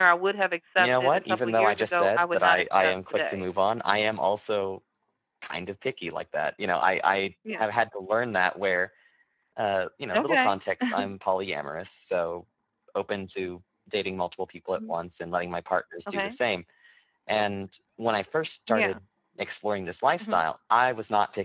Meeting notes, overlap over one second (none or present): present